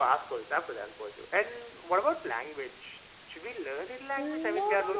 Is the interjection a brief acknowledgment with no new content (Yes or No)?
No